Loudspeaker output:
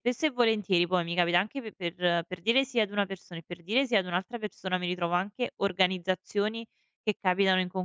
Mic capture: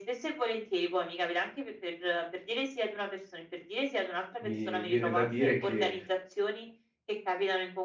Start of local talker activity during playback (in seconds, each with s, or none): 4.4 s